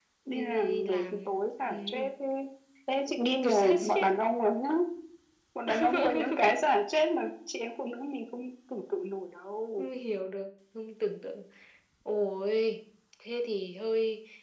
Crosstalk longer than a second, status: present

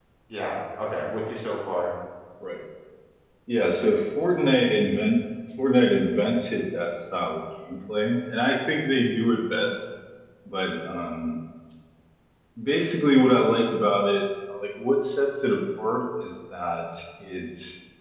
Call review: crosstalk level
none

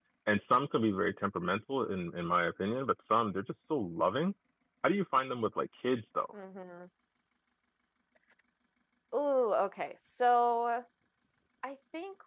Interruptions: none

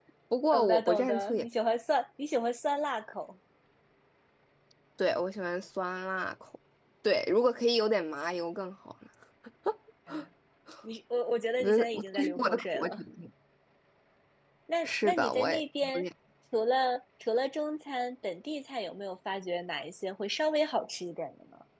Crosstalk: present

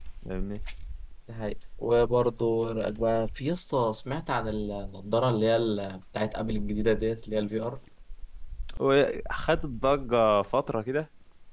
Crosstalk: none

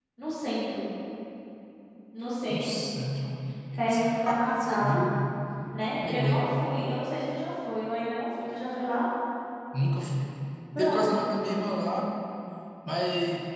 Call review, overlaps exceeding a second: present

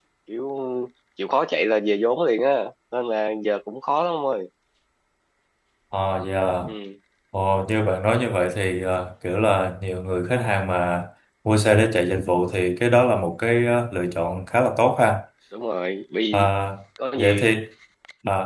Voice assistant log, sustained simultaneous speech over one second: none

